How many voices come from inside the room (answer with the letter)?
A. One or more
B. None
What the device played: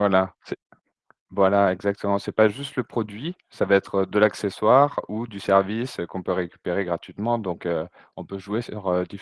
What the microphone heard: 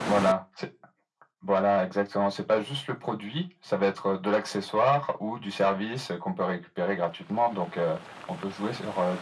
B